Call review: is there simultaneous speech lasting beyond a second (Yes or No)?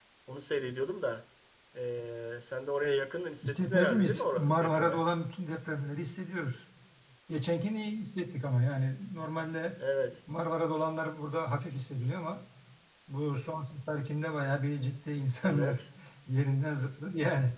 Yes